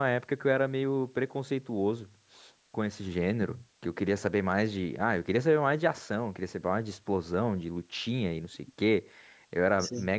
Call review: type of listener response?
listening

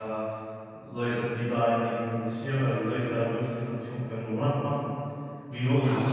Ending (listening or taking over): listening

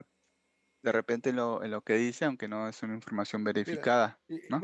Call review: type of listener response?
taking over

